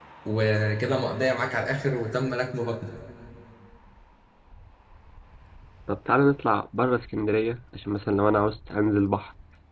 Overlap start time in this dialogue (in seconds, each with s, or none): none